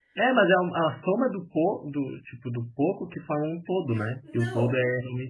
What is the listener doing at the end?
taking over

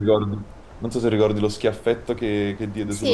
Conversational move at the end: taking over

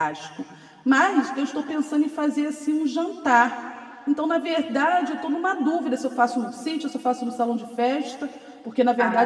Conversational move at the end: listening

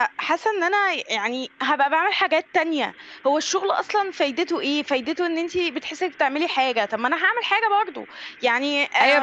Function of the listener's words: taking over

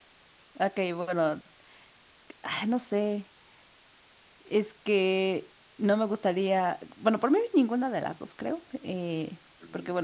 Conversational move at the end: listening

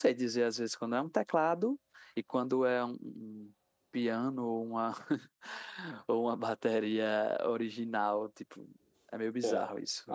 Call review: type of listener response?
taking over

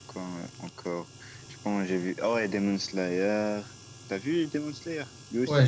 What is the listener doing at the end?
taking over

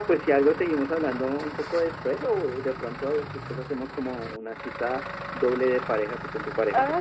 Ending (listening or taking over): taking over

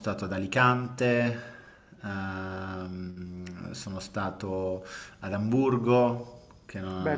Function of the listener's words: taking over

